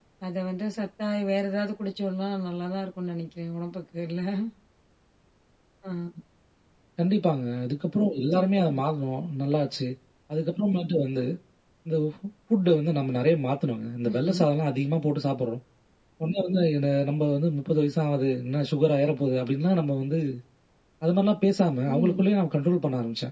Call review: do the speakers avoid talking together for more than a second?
Yes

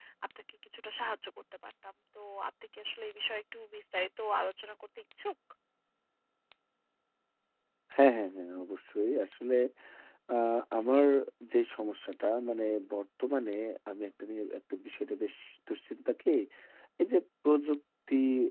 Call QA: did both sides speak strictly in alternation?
Yes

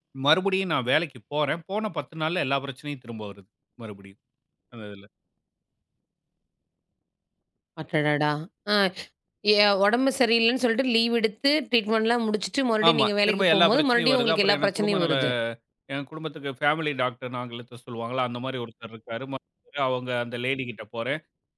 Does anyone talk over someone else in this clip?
Yes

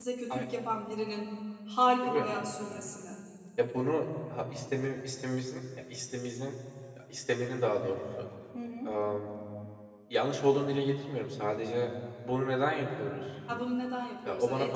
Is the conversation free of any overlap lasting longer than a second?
Yes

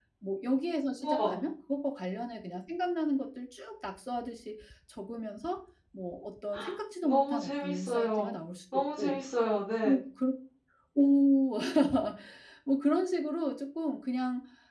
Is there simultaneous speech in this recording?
Yes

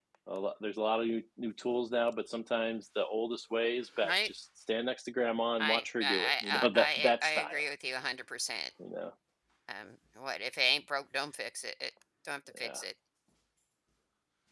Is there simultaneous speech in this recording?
Yes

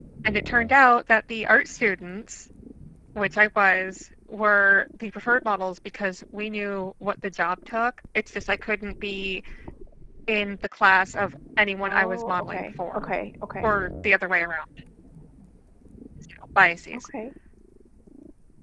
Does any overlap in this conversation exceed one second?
Yes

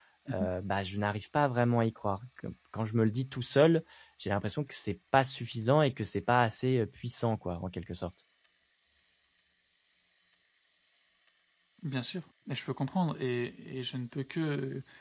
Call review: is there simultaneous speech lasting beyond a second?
No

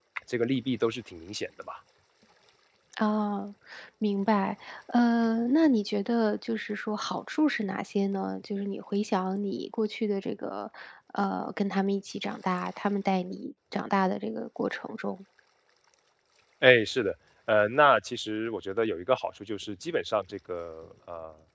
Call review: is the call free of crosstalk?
Yes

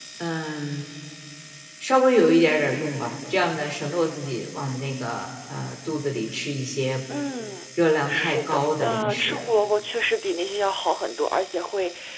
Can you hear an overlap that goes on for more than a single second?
Yes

